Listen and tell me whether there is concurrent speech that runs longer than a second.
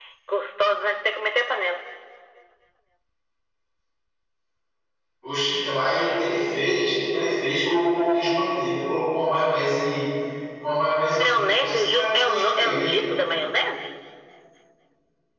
Yes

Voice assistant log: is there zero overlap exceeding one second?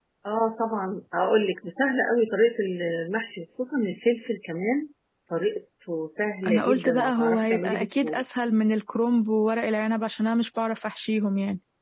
No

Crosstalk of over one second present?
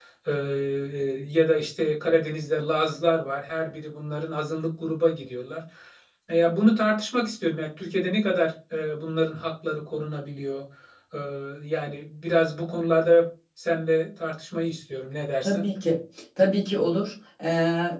No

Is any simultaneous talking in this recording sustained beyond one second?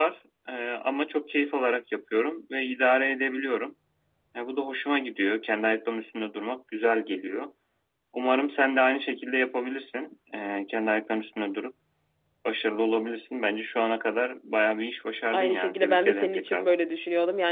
Yes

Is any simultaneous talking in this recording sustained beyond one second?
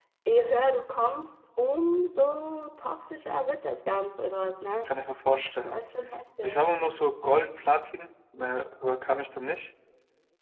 No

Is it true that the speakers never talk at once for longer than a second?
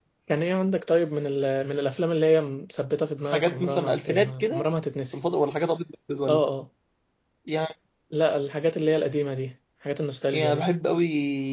No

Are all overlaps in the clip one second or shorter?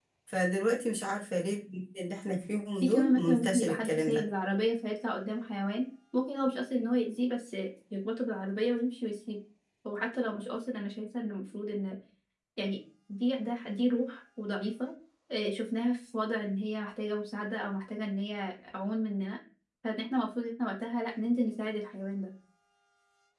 No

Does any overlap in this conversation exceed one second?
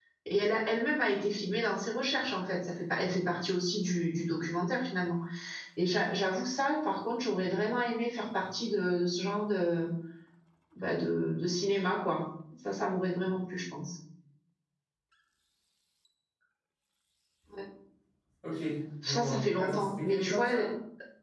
Yes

